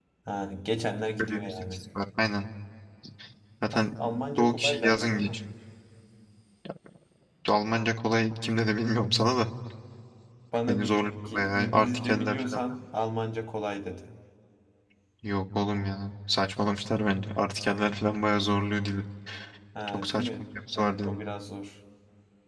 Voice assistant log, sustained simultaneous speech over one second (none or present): present